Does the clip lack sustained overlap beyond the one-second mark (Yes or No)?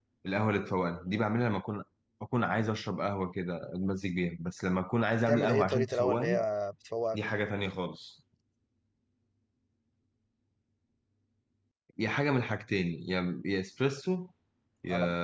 No